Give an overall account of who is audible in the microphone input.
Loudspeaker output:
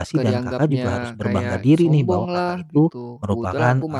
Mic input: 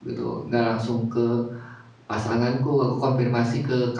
user only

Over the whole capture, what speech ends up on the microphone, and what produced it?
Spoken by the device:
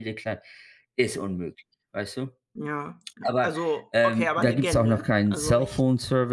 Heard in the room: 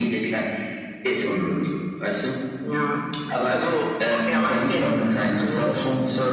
both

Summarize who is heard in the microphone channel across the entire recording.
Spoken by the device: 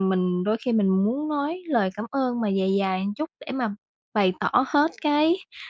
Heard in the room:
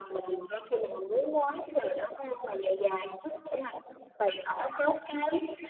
echo only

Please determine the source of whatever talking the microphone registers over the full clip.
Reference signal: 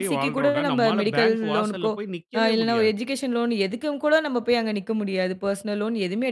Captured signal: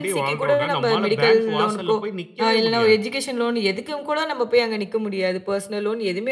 echo only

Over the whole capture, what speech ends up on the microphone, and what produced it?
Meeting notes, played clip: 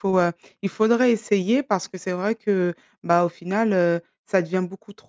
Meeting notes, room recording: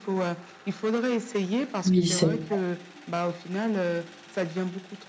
both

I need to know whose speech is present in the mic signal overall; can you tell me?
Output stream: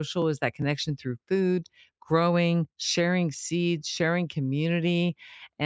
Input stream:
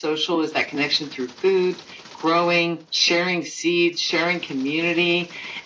echo only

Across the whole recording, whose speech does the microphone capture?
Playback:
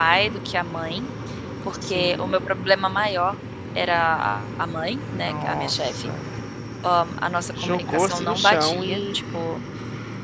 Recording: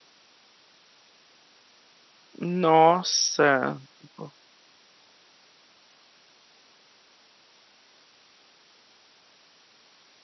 user only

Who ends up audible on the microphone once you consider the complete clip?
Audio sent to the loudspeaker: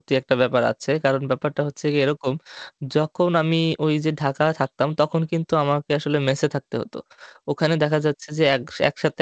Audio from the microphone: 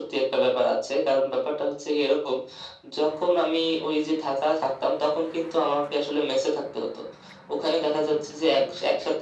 echo only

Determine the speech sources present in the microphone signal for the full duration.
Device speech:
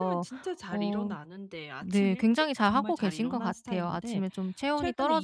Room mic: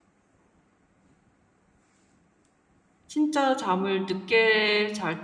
user only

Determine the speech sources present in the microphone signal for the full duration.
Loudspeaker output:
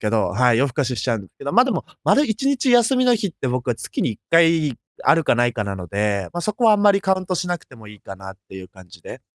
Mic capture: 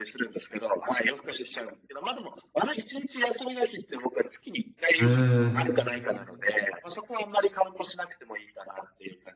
both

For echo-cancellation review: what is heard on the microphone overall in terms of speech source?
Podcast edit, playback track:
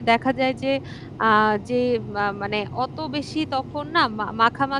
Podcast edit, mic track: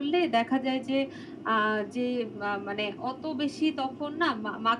echo only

